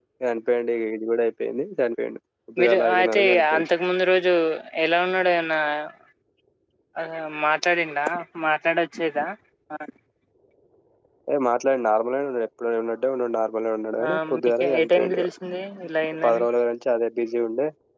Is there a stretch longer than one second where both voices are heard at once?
Yes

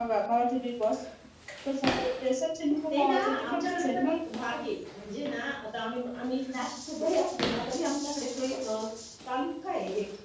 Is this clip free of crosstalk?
No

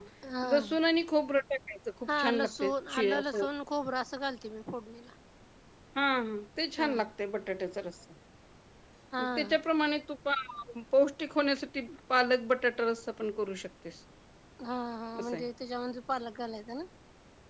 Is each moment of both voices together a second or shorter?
Yes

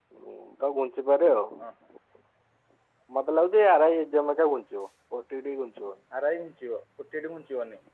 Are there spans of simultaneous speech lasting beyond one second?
No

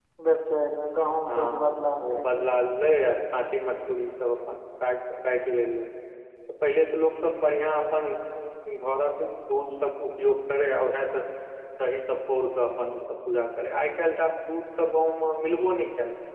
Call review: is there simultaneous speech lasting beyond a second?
Yes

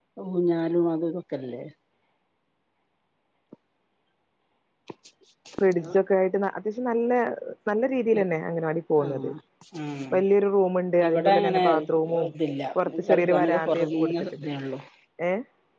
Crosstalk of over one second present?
Yes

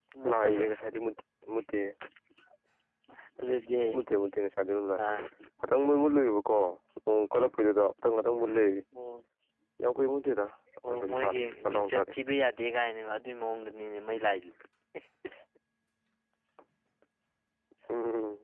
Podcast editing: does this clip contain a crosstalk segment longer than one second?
Yes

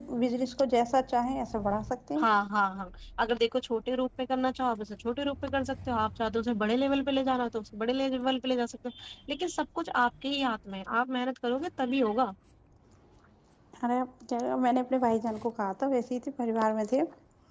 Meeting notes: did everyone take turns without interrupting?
Yes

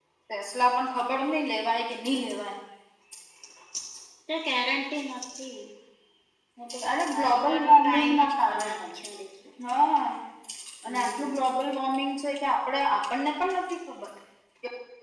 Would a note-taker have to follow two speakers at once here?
Yes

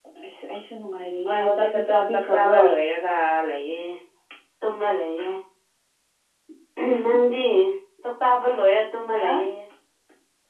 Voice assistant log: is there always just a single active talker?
No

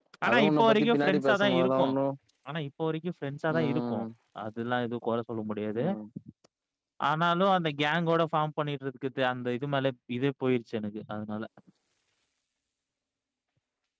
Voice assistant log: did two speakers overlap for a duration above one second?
Yes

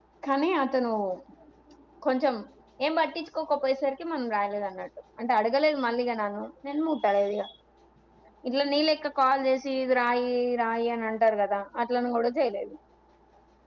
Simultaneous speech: No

